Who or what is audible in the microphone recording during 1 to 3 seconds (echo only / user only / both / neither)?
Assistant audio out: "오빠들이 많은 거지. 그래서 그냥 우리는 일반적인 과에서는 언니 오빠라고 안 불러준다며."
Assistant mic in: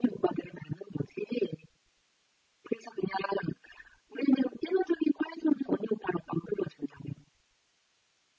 echo only